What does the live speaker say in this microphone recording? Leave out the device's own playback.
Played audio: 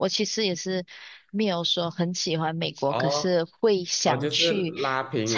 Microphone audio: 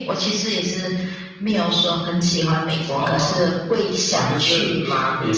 none

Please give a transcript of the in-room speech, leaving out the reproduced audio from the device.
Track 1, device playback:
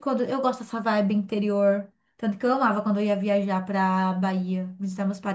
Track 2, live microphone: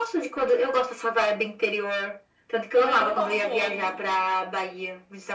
Também não posso ovo.

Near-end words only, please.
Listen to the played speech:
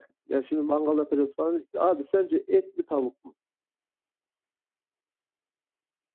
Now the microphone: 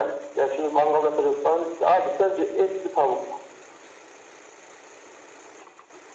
none

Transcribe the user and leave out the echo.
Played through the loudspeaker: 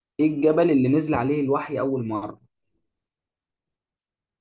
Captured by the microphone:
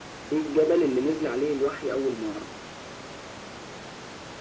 none

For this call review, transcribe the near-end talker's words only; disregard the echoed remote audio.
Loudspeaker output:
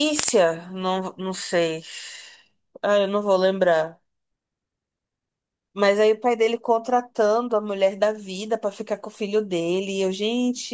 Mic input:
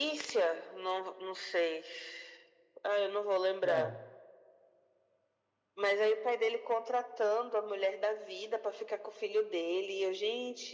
Não,

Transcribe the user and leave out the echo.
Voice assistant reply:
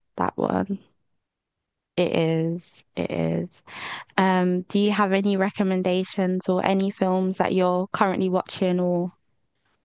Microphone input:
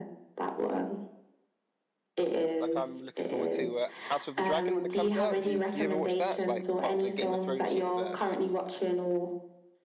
It's like I'm looking forward to uh, House of the Dragon when it comes out. Do you do you ever watch that? It's like part of the Game of Thrones universe.

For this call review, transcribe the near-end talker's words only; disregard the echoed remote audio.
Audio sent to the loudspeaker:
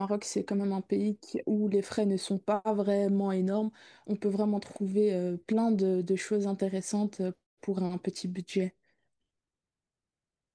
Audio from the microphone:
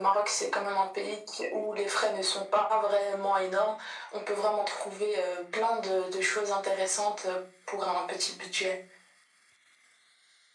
none

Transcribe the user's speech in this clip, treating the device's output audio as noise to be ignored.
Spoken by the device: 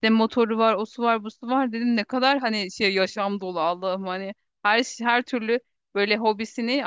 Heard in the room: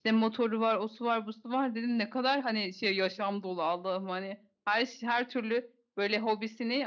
none

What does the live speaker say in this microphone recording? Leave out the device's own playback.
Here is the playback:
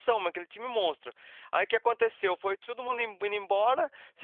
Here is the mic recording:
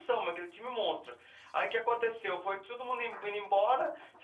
none

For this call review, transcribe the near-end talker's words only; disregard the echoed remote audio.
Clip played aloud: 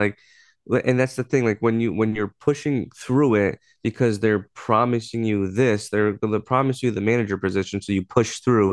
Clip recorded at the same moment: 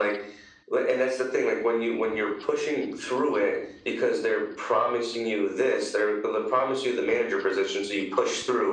none

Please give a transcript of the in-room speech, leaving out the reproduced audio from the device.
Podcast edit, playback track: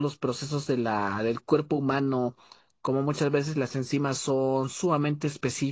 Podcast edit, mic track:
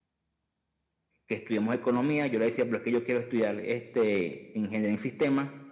que estudiemos economía. Yo le decía, pero es que yo quiero estudiar este, ingeniería en sistemas

